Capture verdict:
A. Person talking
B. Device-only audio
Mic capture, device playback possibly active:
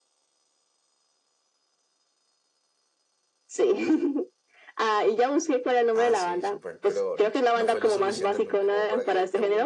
A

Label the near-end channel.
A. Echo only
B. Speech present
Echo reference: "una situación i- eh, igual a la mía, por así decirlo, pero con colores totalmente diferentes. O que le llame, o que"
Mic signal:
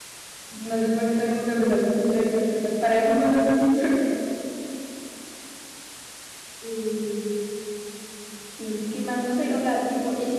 B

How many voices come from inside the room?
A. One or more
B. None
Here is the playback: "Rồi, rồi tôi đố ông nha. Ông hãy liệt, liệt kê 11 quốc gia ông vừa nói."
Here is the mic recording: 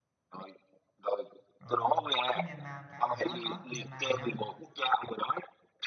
A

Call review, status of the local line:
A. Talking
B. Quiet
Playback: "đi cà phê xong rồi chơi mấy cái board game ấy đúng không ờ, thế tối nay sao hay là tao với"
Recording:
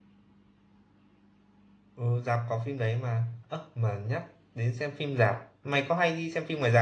A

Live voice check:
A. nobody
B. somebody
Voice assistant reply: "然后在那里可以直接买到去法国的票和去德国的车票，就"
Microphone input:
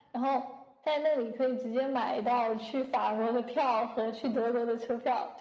A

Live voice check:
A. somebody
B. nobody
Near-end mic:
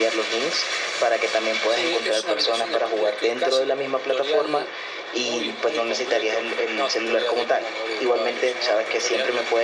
B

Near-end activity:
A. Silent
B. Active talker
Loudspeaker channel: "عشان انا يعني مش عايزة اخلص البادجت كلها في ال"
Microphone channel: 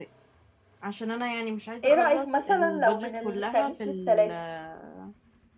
B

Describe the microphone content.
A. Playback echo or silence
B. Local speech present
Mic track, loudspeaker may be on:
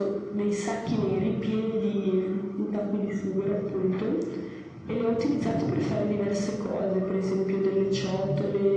A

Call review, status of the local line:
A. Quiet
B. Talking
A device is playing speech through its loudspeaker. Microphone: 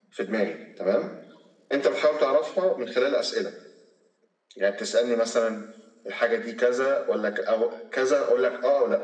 A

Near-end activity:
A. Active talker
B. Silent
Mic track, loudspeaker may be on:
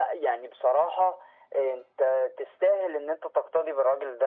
B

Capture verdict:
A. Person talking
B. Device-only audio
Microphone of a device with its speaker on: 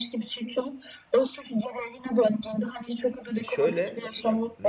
A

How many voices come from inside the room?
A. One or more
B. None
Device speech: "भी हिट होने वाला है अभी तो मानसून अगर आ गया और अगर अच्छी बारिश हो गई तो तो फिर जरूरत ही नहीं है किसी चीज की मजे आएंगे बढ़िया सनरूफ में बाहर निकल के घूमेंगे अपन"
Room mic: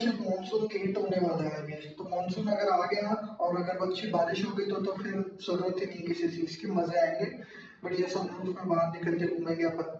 B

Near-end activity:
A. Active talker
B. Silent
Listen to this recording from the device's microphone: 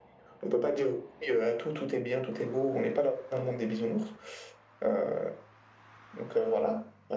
B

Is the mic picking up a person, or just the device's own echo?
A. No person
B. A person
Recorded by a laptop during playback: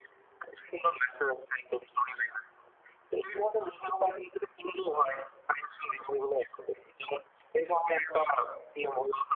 A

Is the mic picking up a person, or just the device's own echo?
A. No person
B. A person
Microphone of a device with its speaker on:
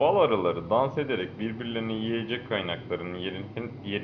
B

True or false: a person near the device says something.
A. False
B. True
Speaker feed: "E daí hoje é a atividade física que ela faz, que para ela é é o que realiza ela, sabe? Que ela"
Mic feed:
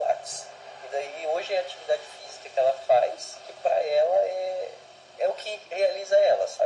A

